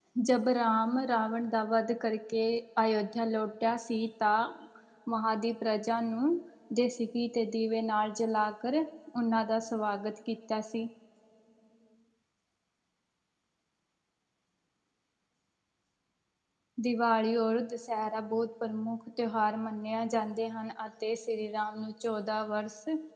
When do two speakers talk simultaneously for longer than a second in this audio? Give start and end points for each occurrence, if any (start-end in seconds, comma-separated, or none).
none